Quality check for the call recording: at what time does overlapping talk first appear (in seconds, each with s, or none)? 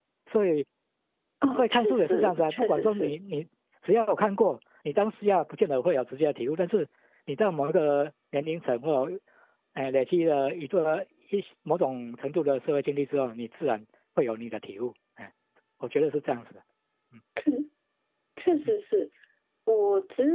1.6 s